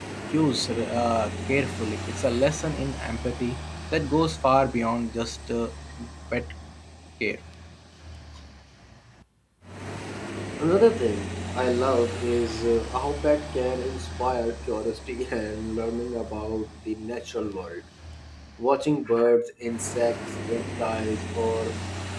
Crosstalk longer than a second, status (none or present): none